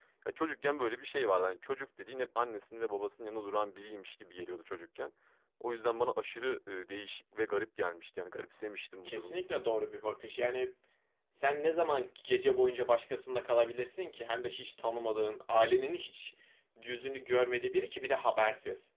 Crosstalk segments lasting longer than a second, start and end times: none

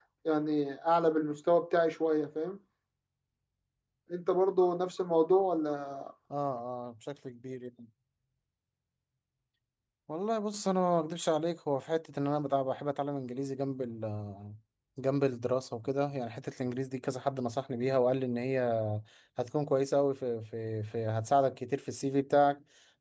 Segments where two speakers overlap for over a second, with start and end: none

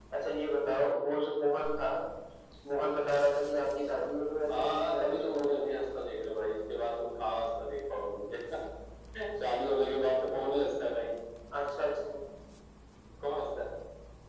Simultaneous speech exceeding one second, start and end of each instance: 4.5-5.7

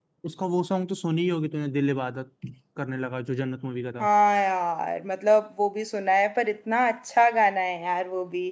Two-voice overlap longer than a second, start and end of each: none

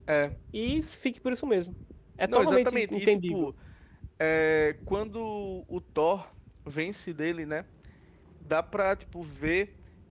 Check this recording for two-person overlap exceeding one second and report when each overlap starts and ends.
2.3-3.5

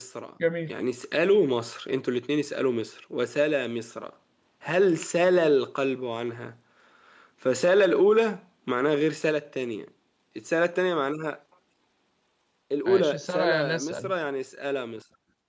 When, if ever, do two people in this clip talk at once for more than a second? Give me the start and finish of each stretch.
12.9-14.1

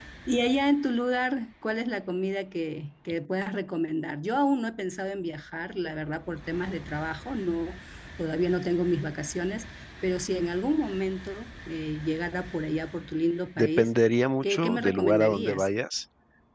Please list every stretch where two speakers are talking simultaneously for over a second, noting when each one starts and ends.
14.4-15.7

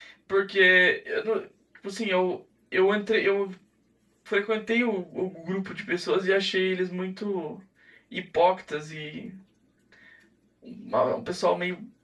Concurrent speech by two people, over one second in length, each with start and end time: none

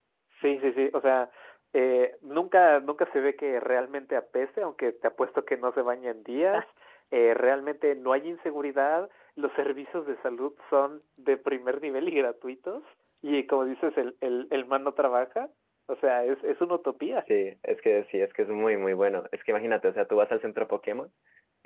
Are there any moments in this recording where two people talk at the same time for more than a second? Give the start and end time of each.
none

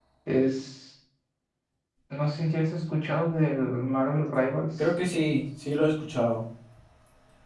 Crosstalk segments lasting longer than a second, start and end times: none

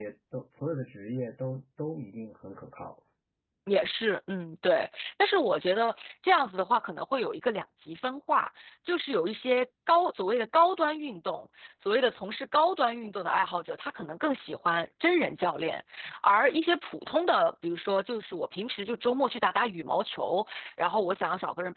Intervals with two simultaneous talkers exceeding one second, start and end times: none

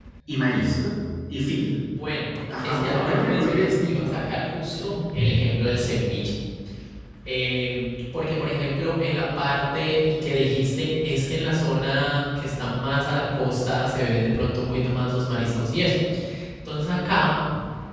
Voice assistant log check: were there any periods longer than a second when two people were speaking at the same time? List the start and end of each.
2.6-4.2

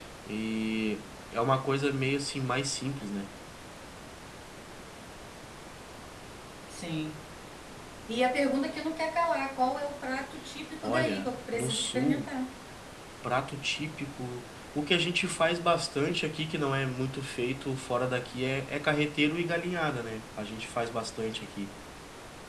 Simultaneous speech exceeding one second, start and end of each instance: 10.8-12.3

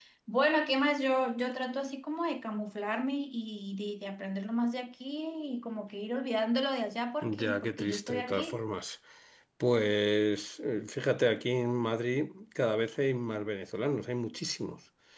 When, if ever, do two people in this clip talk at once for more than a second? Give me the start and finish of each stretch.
7.2-8.6

